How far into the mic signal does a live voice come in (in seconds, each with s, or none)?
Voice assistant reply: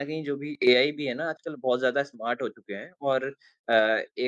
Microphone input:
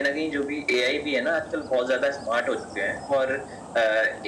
none